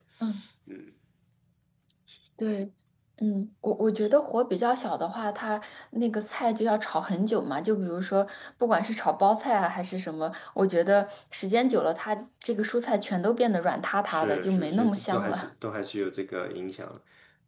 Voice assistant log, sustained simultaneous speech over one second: present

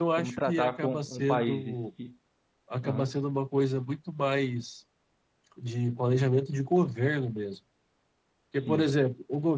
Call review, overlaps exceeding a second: present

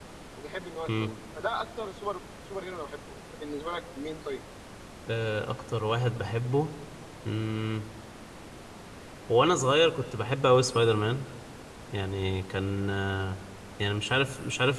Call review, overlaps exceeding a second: none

